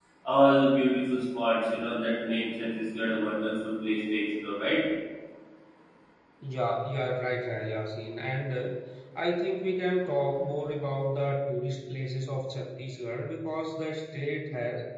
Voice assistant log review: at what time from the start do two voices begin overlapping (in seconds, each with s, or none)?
none